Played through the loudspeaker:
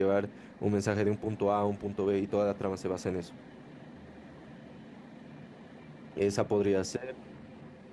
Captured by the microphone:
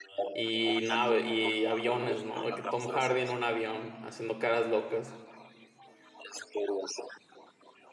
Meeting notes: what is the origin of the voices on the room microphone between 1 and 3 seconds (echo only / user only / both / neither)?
both